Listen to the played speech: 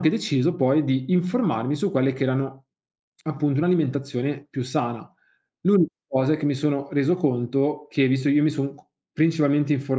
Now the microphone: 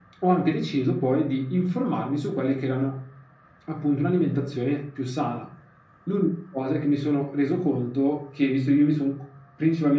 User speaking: No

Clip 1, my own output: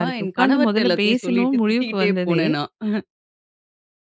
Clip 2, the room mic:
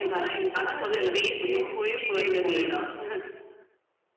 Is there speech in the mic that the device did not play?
No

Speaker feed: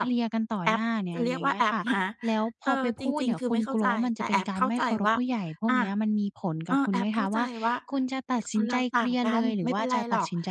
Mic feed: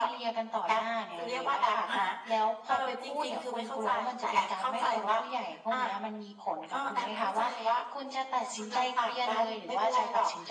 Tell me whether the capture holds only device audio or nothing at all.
Yes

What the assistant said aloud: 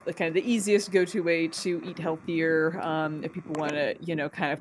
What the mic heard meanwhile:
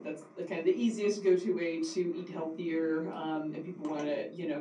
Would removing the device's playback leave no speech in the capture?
Yes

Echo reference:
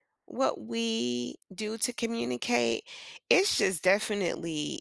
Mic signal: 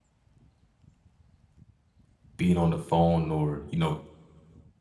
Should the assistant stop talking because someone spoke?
Yes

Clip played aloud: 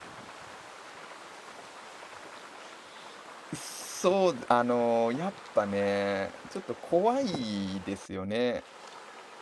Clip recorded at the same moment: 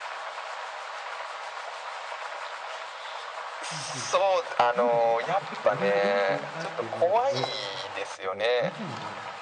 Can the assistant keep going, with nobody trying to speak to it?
No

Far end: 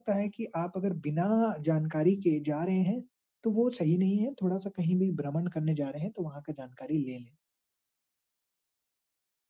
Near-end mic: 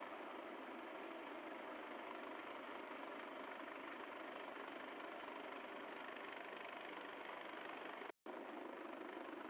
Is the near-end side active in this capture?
No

